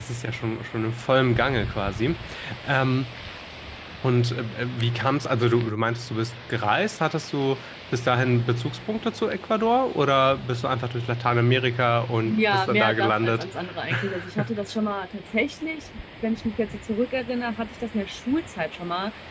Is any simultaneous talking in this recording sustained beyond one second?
Yes, from 12.2 s

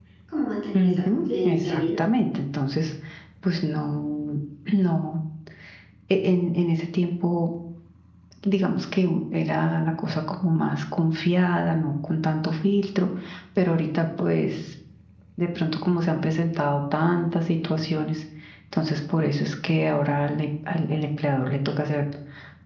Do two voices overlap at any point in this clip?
Yes, from 0.7 s

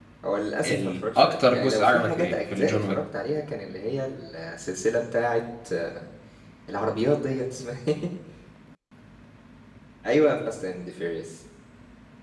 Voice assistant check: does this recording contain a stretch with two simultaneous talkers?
Yes, from 0.7 s

